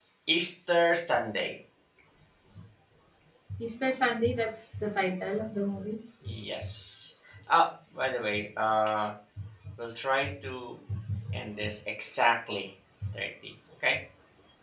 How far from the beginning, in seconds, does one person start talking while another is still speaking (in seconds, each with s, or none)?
none